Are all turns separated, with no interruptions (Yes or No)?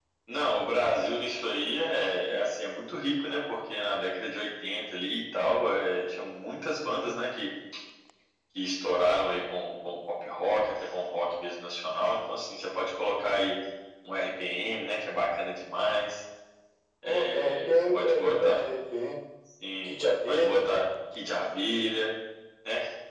No